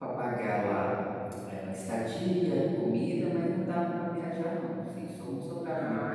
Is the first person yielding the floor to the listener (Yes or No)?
Yes